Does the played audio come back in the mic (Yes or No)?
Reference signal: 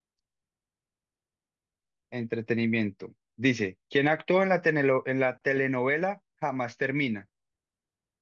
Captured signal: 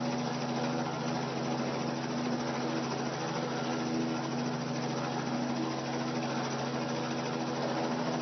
No